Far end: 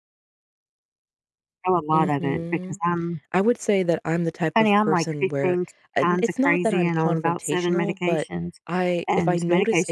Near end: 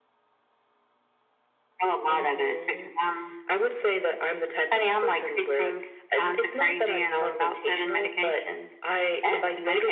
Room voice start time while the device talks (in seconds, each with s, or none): none